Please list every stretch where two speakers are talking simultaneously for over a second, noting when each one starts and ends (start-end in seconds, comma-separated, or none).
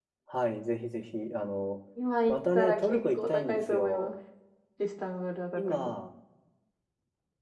2.3-4.1